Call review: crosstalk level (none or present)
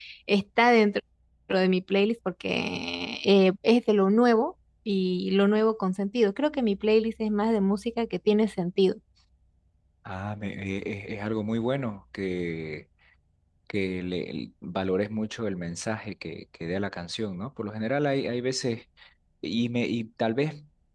none